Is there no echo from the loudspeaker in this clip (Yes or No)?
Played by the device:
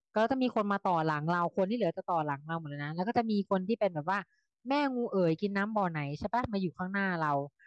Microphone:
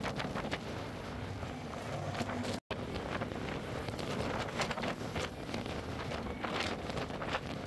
Yes